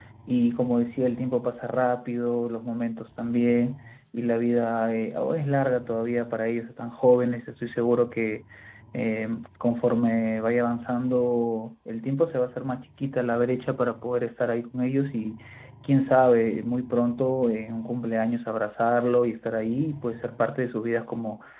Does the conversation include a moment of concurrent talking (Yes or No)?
No